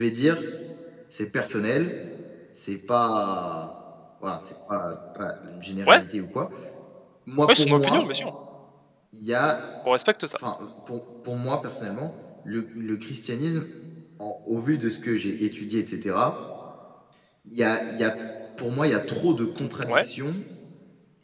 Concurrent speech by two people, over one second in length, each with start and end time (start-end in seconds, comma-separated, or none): none